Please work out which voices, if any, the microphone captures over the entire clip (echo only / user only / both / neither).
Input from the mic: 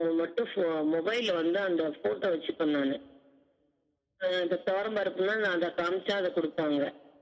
echo only